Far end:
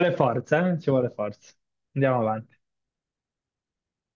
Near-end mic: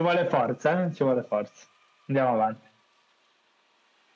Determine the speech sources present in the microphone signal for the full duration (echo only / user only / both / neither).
echo only